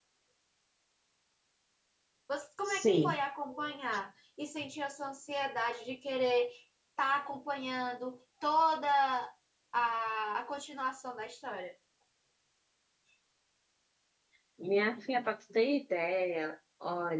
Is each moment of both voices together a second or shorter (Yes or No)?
Yes